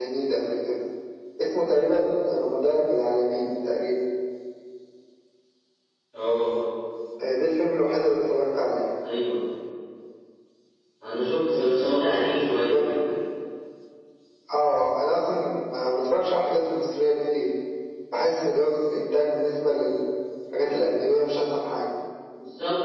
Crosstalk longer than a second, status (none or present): present